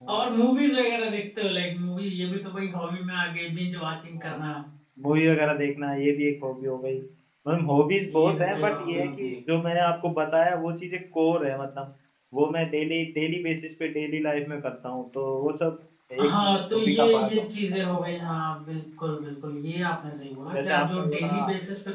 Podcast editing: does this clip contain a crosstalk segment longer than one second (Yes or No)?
Yes